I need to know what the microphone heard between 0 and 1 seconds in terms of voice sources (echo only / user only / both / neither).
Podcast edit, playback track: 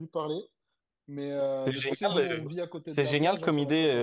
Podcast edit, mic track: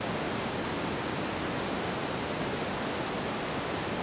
neither